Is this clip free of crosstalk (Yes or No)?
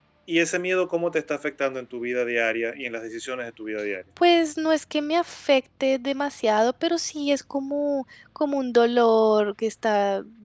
Yes